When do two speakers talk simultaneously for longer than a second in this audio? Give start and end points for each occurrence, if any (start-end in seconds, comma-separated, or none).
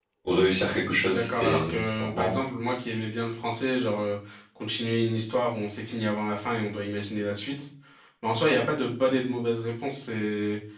0.9-2.4